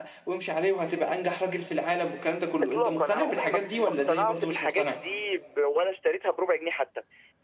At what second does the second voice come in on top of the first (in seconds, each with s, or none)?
2.6 s